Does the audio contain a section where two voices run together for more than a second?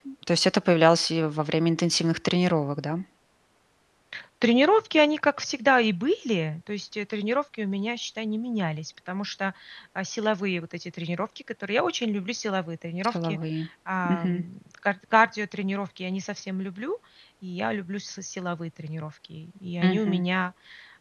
No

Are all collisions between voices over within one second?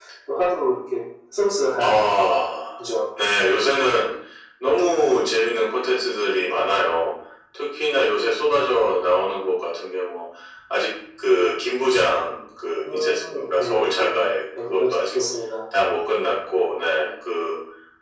No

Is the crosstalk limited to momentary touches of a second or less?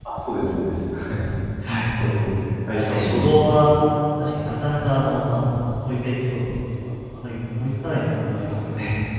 Yes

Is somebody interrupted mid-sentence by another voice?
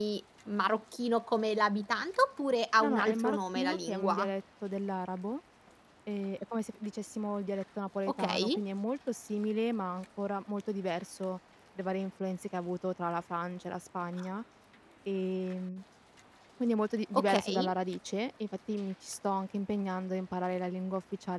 Yes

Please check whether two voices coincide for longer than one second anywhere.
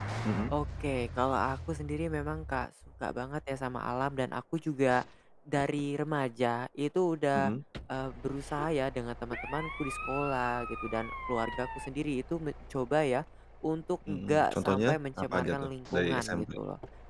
Yes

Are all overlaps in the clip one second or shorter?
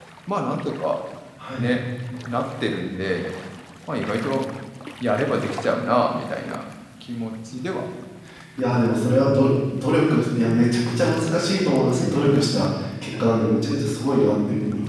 Yes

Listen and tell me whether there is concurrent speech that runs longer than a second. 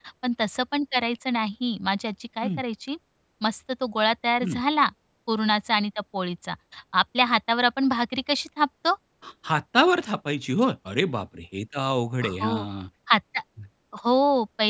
No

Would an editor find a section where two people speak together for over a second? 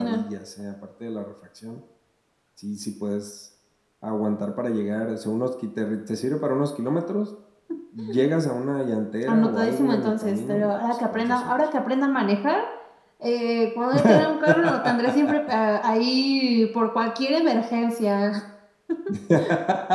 Yes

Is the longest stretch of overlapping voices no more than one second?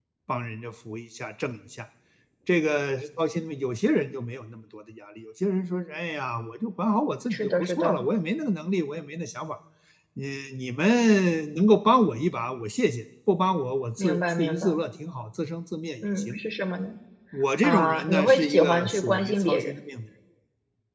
No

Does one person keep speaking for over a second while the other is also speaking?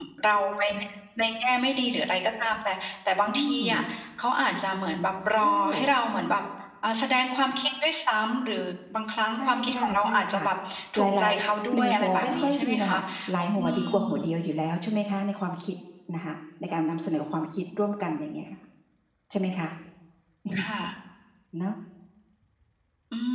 Yes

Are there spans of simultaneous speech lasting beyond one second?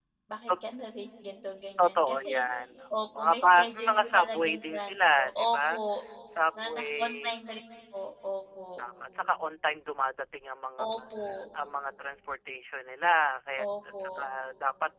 Yes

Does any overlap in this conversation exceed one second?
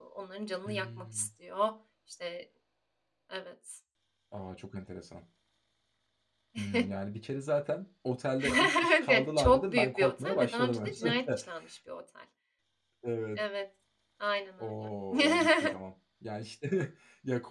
Yes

